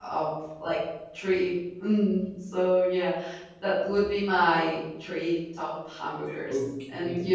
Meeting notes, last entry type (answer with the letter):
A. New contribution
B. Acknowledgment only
A